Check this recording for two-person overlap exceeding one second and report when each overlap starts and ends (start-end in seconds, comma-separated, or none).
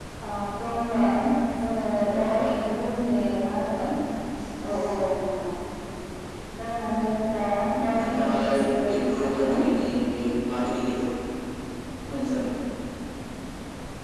8.0-9.6